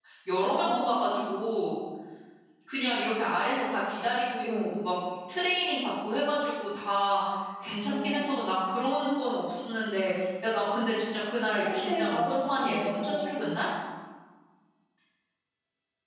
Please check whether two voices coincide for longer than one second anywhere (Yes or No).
Yes